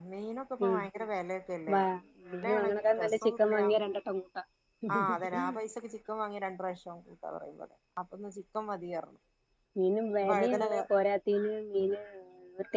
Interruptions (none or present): present